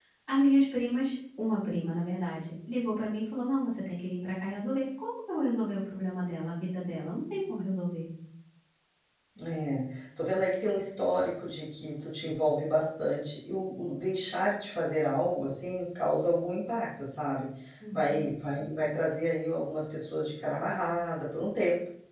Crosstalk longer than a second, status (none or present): none